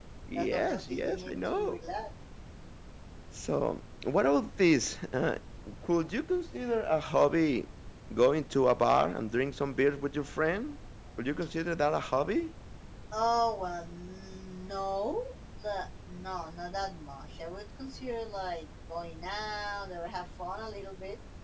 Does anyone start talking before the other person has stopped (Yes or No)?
Yes